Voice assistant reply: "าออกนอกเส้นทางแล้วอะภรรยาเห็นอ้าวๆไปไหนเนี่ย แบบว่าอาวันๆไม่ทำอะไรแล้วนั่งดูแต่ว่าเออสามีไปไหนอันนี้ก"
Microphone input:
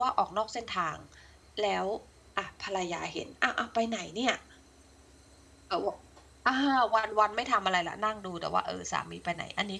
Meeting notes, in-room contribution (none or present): none